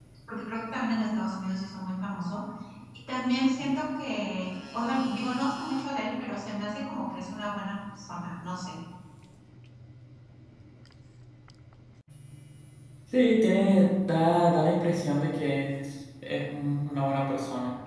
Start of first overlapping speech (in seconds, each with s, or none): none